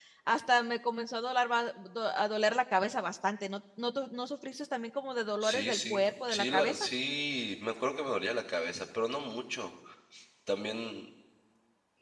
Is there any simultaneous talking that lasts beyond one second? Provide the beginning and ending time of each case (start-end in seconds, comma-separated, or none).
5.4-6.9